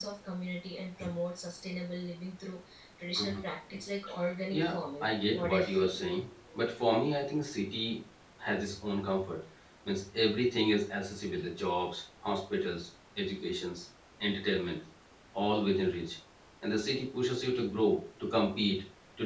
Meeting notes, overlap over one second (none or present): present